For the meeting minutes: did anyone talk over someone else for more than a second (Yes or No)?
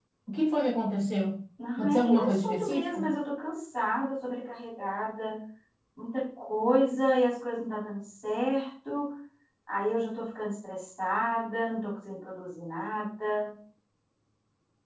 Yes